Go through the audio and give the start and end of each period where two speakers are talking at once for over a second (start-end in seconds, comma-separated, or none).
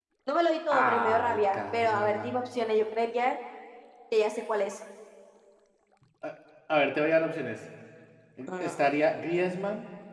0.7-2.3